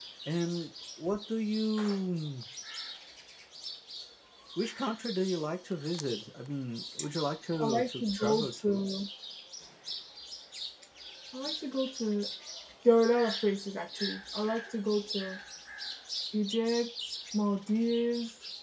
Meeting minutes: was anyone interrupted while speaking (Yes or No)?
Yes